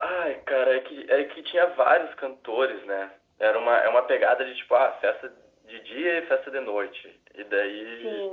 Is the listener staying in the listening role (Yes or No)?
Yes